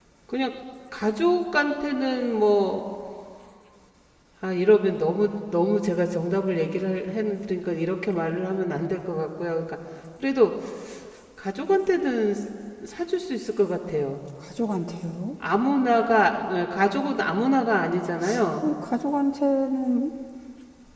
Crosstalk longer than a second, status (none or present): none